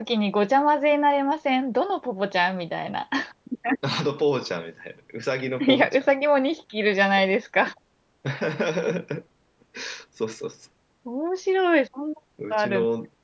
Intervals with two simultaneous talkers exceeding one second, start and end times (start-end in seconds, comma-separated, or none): none